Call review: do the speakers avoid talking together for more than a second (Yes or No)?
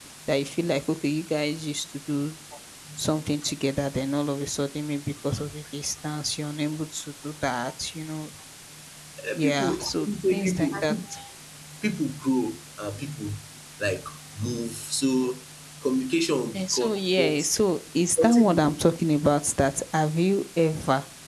No